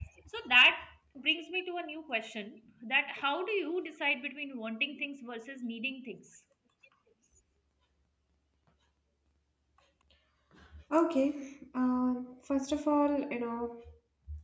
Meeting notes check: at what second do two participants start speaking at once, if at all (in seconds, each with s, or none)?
none